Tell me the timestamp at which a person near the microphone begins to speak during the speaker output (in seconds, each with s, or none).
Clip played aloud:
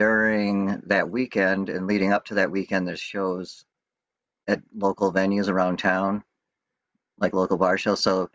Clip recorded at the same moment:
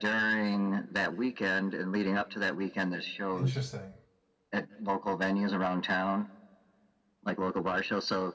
3.3 s